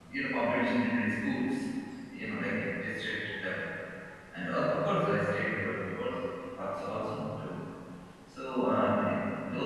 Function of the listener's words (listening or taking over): listening